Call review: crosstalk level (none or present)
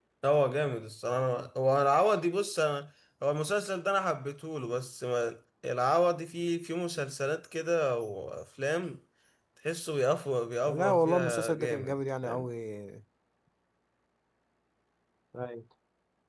present